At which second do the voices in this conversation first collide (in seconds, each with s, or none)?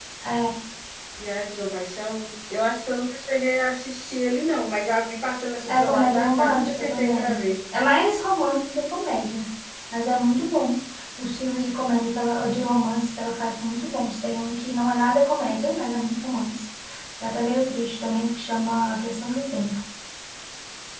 5.7 s